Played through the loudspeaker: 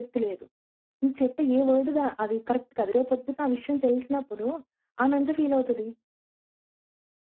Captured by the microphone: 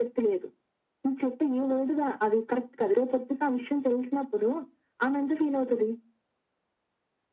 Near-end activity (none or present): none